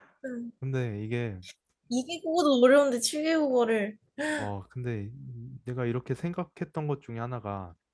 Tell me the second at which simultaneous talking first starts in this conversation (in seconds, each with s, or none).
none